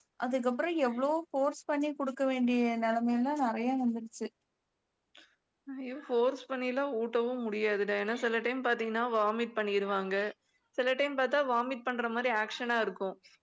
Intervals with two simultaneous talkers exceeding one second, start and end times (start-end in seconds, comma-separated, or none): none